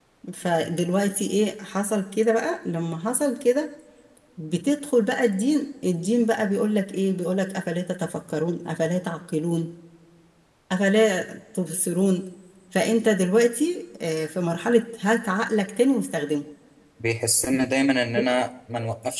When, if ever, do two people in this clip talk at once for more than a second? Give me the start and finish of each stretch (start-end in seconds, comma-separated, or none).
none